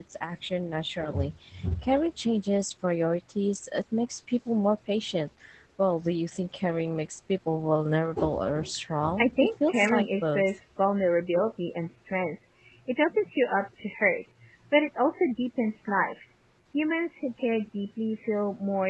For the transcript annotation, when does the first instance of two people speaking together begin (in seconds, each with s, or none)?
9.2 s